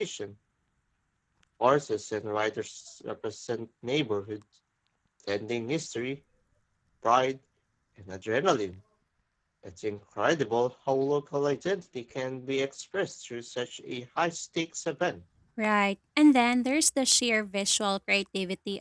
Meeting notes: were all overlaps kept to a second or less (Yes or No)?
Yes